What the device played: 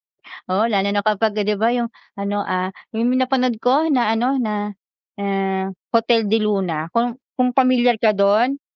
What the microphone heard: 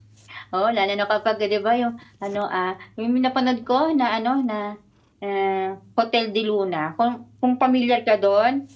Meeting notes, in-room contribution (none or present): none